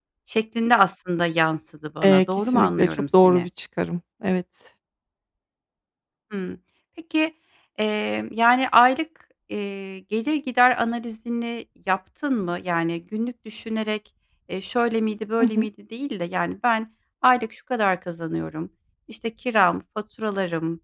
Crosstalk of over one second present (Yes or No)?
Yes